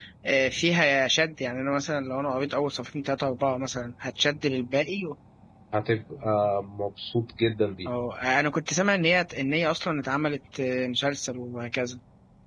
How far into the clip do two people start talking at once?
none

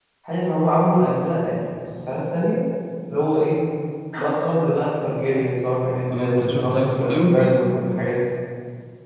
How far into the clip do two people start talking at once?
6.1 s

